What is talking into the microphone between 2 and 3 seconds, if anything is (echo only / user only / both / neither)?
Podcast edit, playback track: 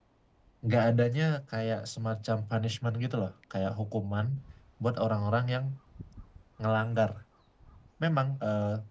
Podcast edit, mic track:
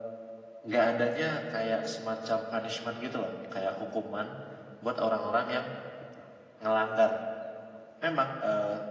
echo only